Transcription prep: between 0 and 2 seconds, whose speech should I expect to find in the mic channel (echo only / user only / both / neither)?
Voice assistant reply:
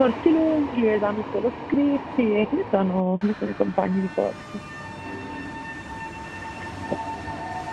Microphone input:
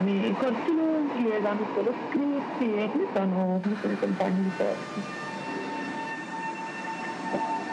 echo only